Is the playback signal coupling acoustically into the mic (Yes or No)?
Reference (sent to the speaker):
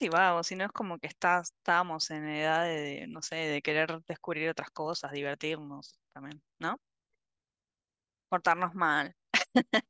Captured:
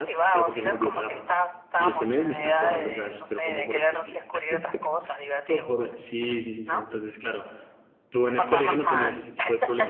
Yes